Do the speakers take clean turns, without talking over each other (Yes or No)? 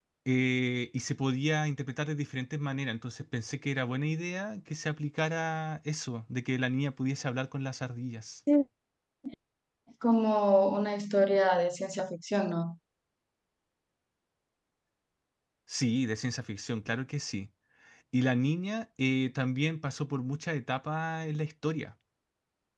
Yes